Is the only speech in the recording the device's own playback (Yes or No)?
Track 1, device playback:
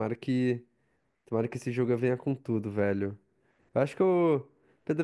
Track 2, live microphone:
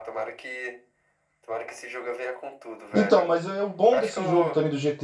No